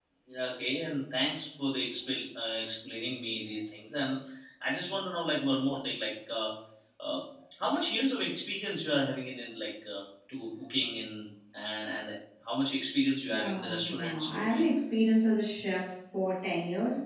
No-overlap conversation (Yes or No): No